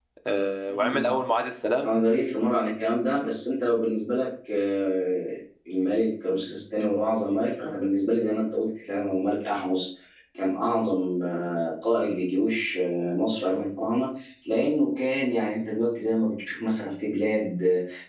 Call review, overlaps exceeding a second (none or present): none